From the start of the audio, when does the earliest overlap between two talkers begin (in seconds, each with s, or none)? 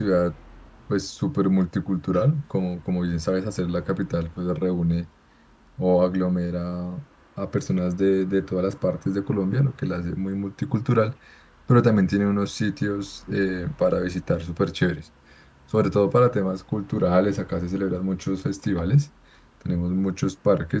none